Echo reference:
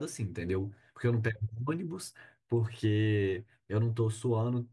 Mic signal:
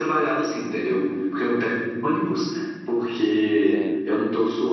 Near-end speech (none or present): present